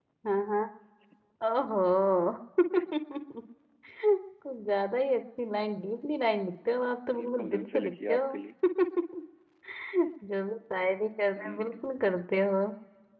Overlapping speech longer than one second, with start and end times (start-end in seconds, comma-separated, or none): 7.2-8.4